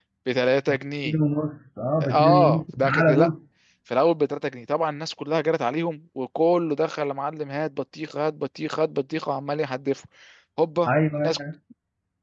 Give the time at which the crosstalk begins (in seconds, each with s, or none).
2.0 s